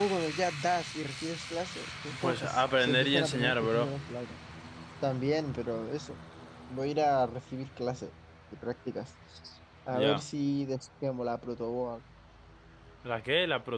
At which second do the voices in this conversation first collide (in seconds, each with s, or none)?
2.2 s